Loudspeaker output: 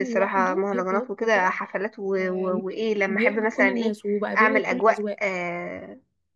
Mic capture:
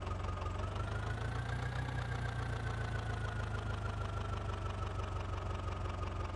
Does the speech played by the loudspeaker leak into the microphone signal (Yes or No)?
No